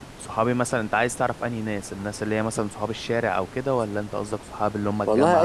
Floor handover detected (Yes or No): Yes